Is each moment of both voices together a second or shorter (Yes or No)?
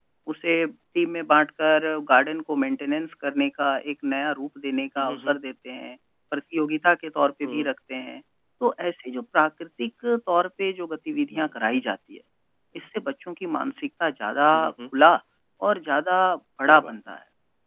Yes